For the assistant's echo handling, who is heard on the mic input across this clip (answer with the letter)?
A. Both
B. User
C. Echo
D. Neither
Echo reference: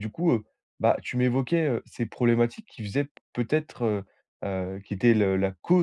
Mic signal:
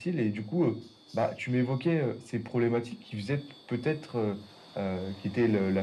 C